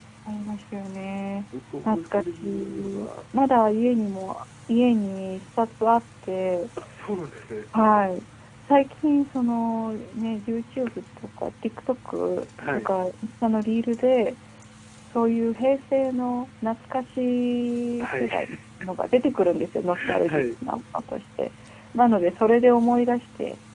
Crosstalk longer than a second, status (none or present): present